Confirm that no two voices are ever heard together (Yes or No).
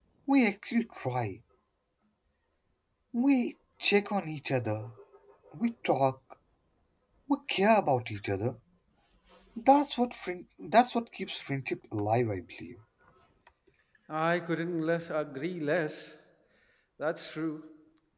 Yes